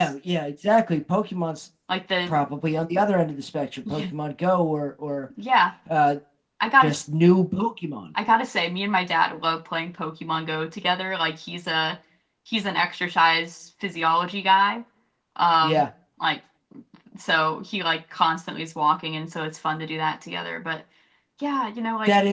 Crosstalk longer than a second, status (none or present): none